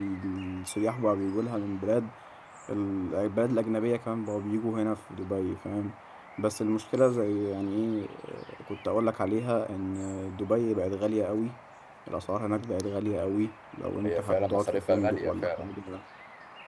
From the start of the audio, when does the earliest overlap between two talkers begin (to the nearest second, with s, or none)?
14 s